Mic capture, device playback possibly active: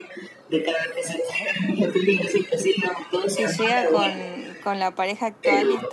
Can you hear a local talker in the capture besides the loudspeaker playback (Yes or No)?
Yes